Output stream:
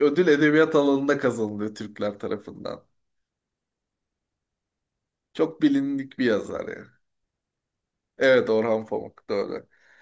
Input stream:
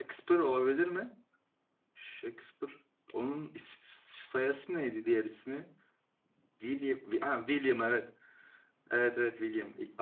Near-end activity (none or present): present